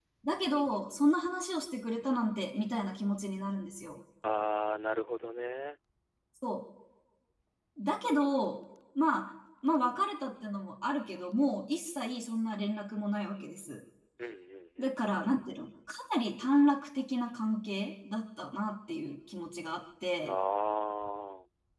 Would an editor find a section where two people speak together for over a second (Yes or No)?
No